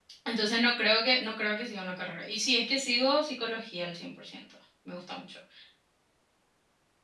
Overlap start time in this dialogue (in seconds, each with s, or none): none